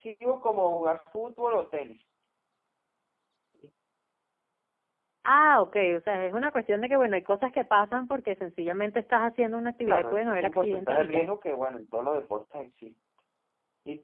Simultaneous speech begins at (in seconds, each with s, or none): 9.9 s